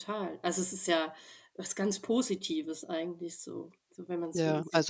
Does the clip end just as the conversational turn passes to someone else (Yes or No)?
Yes